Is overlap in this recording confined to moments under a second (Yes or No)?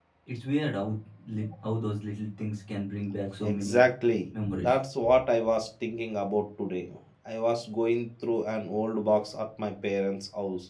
Yes